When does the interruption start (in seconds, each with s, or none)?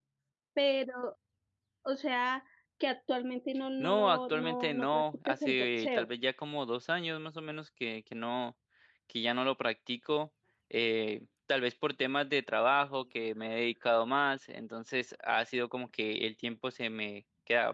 3.8 s